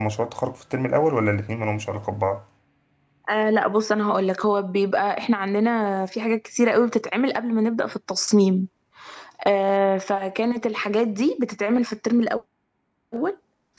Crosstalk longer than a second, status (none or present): none